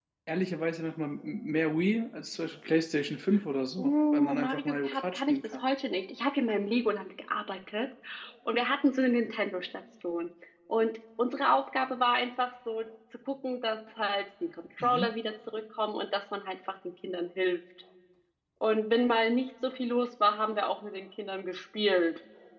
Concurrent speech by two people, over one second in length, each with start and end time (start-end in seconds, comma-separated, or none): 3.8-5.6